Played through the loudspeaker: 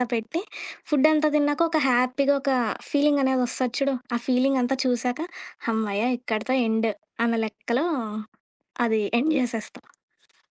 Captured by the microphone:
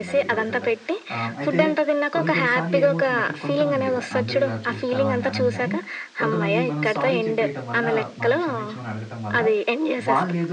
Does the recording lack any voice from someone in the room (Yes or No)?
No